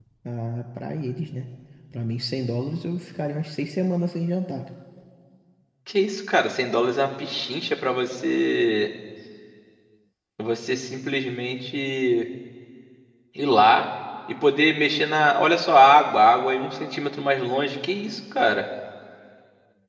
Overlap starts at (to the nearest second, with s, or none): none